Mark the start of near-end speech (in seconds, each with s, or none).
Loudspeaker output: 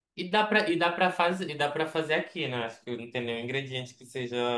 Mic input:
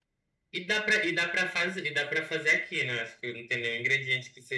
none